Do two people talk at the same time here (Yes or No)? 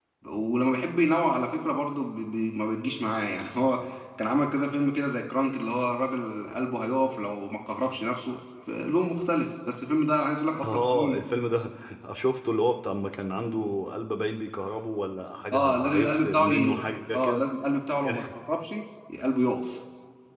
Yes